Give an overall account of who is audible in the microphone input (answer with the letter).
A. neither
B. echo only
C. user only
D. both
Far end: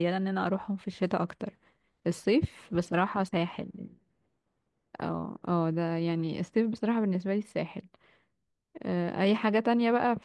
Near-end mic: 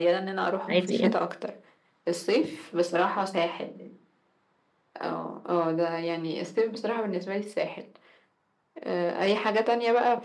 D